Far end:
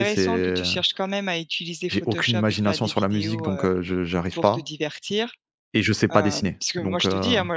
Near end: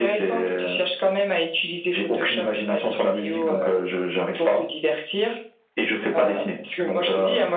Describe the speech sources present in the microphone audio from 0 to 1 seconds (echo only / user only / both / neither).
echo only